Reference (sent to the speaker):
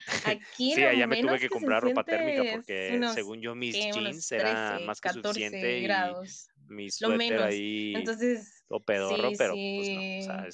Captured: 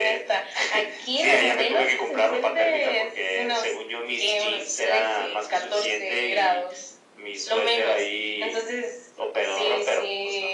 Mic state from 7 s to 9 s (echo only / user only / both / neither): echo only